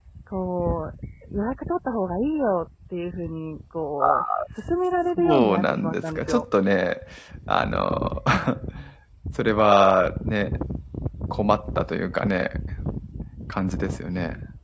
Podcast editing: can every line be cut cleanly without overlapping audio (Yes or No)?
No